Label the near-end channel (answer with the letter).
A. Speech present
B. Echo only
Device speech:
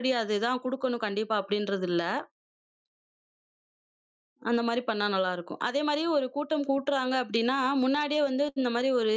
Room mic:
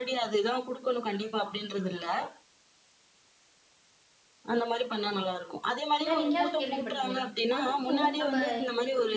A